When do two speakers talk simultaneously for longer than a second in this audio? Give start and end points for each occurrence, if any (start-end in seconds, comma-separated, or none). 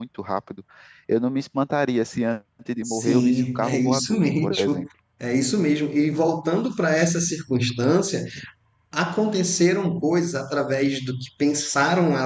2.8-4.9